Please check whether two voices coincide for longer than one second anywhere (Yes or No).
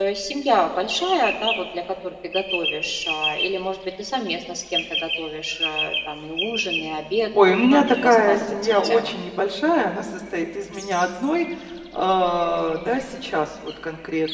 Yes